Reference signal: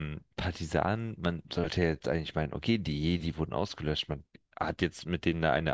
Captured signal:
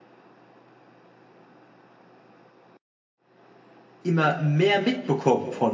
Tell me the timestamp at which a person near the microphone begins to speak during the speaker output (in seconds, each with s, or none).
4.0 s